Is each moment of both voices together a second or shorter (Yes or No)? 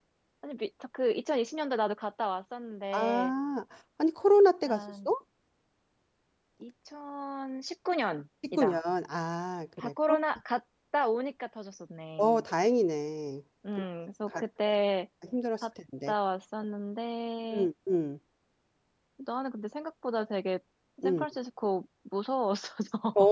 Yes